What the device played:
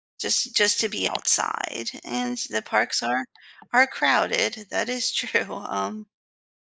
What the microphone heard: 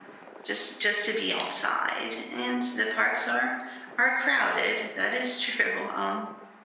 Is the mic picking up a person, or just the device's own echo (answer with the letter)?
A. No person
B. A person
A